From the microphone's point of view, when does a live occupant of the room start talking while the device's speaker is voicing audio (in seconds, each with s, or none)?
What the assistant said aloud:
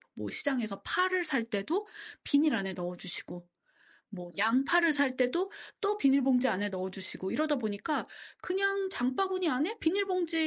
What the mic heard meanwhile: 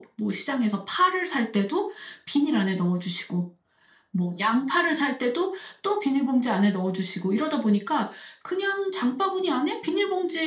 none